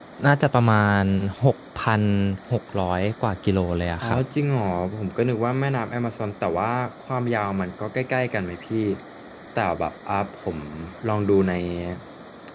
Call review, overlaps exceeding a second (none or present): none